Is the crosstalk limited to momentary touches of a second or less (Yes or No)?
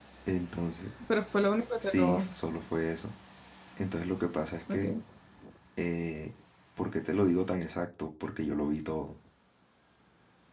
Yes